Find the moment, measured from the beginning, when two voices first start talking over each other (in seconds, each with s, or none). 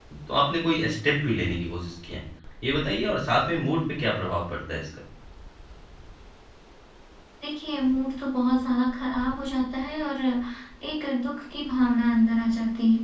none